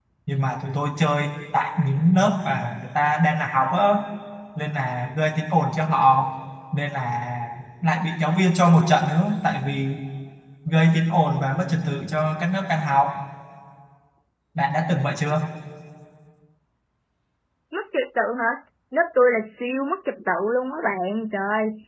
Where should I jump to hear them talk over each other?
none

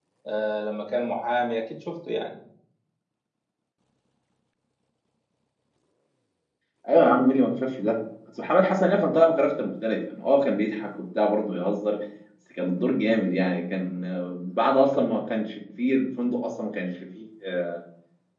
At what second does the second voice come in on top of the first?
none

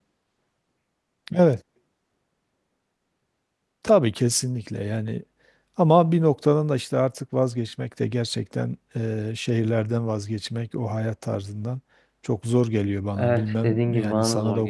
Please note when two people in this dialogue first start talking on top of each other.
13.2 s

